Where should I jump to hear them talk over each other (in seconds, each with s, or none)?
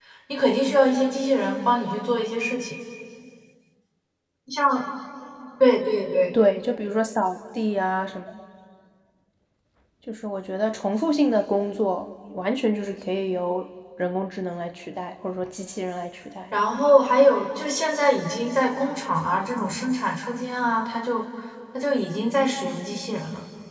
none